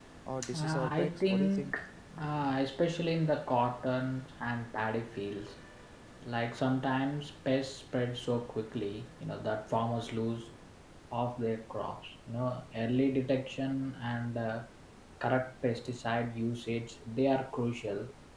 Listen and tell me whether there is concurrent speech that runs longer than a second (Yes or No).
Yes